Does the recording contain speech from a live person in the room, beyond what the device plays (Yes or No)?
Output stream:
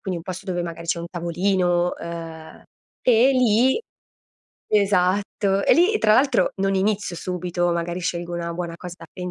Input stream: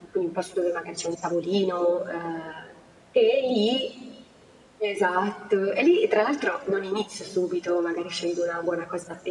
No